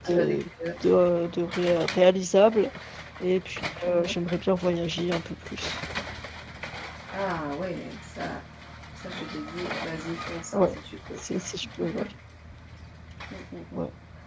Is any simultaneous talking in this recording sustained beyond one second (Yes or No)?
No